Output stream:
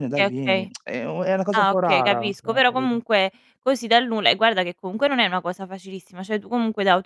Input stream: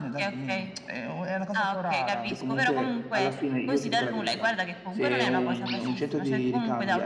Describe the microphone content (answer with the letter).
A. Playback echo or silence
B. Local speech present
B